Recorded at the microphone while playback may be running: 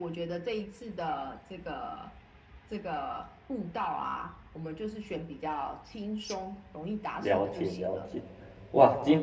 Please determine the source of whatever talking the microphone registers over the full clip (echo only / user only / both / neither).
both